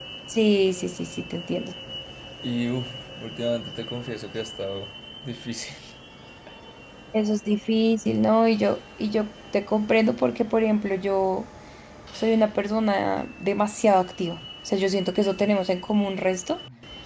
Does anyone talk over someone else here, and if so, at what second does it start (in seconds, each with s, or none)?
none